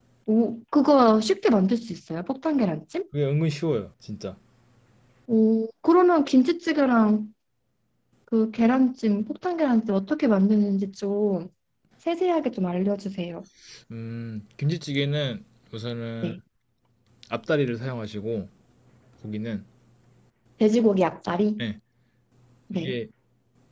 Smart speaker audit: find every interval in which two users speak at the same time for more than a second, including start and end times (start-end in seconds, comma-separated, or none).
none